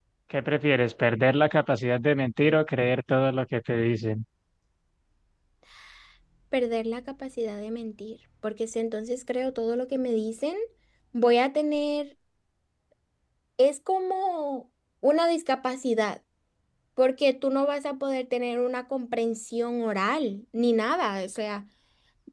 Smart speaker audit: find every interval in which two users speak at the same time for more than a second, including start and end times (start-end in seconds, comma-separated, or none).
none